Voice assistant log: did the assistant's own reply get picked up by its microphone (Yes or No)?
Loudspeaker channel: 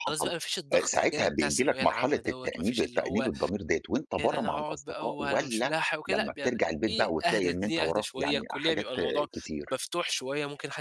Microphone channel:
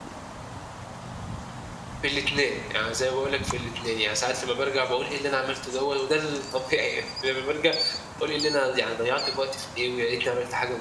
No